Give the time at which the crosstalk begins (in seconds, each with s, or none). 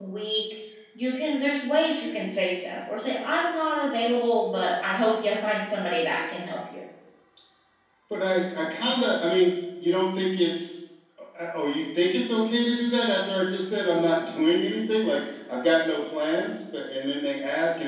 none